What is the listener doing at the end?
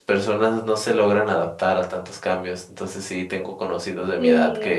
listening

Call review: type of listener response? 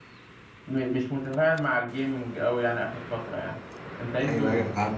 taking over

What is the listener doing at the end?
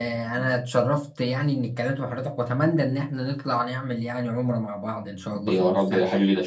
taking over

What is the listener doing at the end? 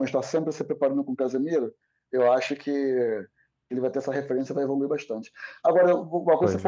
listening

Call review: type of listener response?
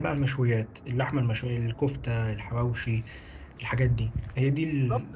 taking over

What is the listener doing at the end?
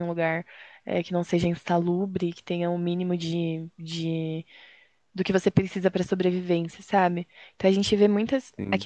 listening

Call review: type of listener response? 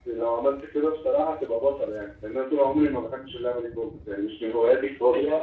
taking over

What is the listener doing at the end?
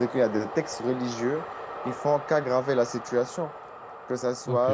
taking over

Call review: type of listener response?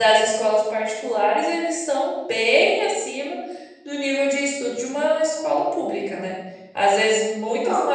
listening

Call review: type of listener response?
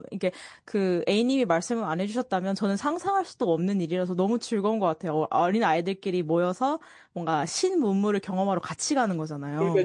taking over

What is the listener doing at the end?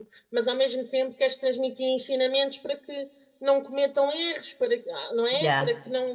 listening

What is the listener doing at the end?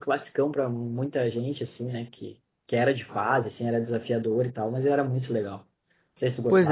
taking over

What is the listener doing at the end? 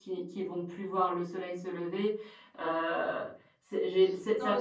taking over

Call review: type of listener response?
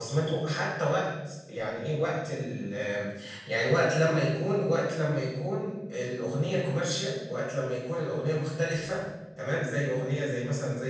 listening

